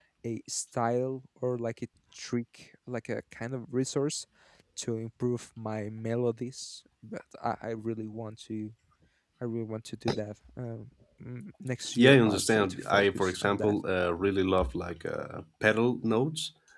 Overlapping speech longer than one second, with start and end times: 11.9-13.8

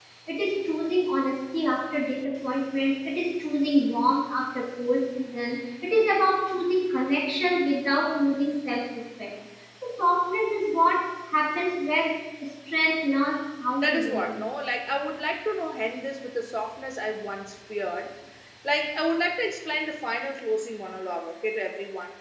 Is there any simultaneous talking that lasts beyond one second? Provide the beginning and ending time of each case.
none

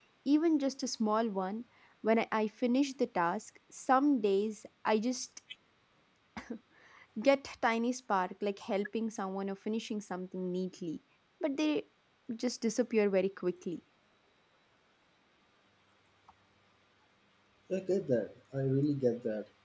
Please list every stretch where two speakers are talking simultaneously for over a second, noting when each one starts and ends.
none

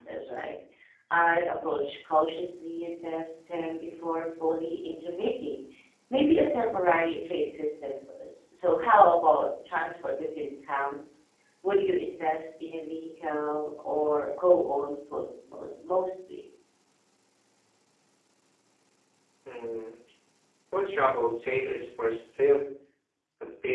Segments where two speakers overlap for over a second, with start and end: none

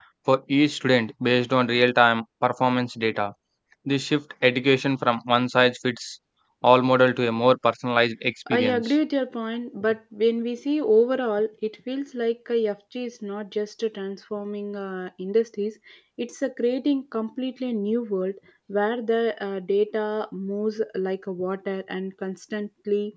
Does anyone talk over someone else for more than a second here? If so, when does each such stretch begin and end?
none

